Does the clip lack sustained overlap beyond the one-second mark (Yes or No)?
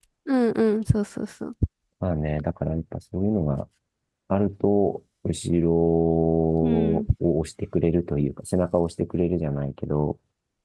Yes